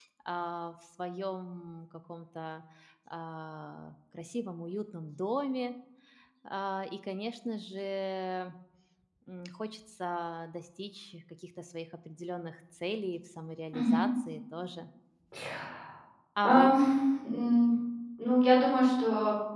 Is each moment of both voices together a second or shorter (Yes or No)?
Yes